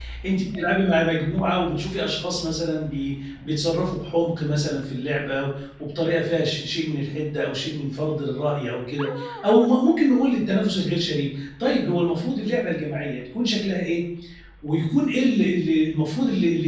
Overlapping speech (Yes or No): No